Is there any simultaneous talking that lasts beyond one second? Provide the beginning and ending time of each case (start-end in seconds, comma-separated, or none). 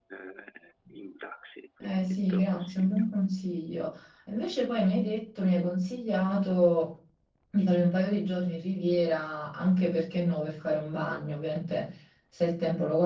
1.8-3.0